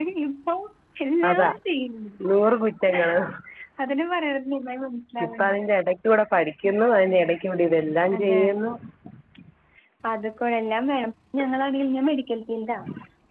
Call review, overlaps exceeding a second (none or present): none